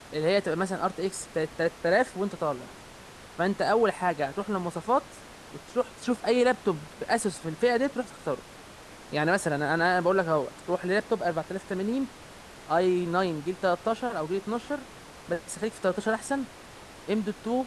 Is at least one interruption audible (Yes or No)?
No